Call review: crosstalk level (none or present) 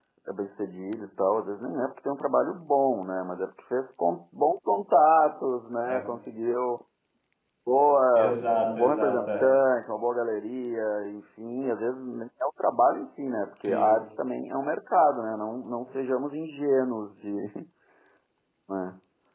present